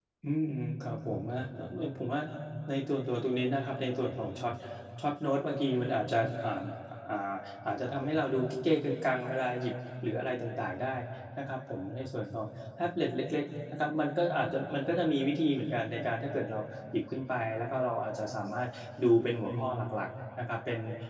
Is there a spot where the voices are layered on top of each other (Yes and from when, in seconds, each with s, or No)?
No